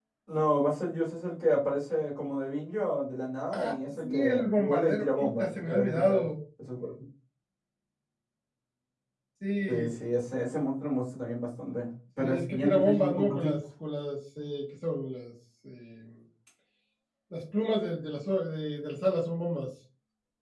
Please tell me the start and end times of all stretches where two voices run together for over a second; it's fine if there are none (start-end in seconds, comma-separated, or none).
4.0-6.3, 12.2-13.5